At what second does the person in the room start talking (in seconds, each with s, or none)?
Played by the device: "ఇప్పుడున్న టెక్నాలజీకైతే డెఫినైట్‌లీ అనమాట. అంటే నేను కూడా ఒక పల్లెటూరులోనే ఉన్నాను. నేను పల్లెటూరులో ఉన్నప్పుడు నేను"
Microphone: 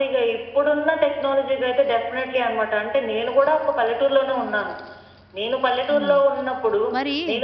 5.9 s